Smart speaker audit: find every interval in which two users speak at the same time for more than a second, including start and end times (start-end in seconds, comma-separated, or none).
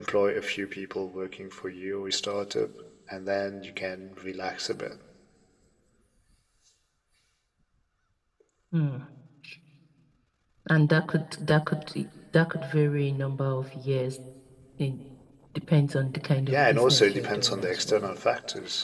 16.5-18.1